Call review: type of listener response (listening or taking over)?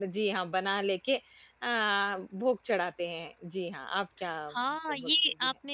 taking over